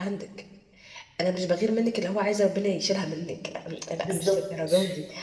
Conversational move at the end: listening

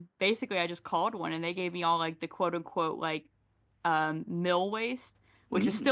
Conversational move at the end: listening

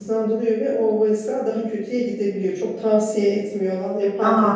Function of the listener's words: listening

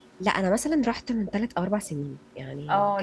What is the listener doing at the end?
taking over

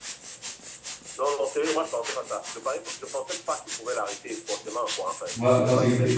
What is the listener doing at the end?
taking over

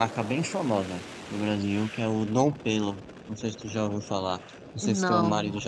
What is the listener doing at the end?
listening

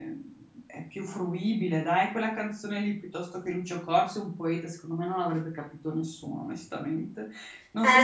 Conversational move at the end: taking over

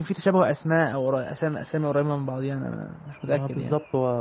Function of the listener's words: taking over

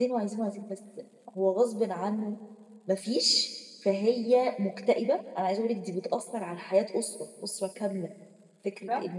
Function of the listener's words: listening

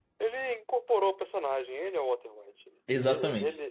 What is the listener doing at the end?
listening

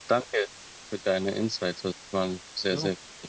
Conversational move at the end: taking over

